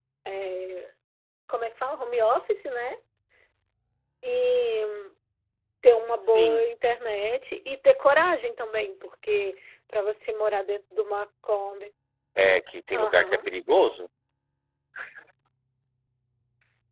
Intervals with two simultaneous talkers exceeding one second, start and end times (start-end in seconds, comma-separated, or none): none